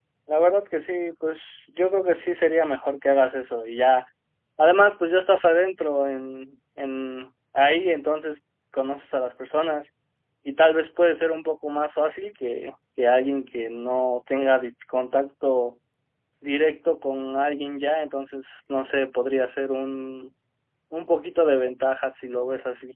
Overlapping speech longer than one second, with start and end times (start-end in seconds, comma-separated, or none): none